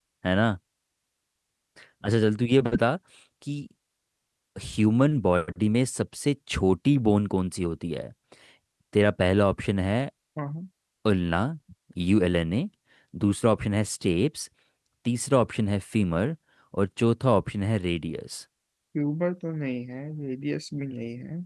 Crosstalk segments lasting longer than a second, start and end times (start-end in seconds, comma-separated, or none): none